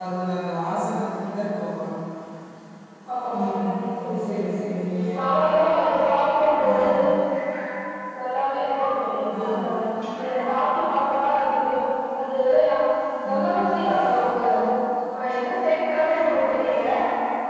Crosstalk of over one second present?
Yes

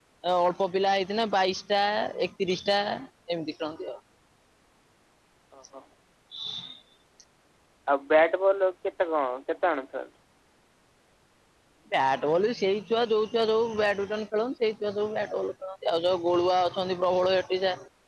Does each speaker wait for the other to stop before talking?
Yes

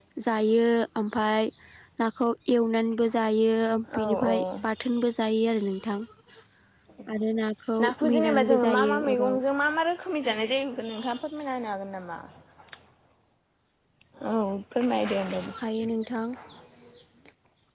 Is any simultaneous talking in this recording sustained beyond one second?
Yes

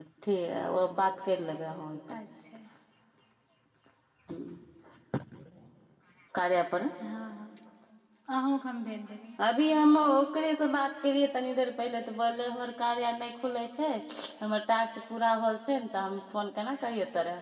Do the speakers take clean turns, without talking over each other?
Yes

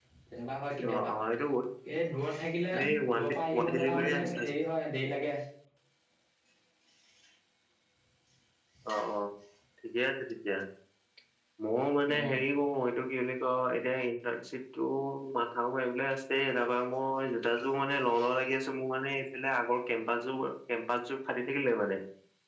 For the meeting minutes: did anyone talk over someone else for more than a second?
Yes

